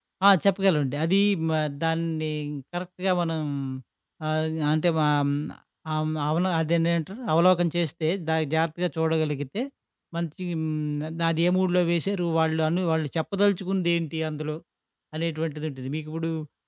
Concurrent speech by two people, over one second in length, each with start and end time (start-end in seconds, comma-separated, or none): none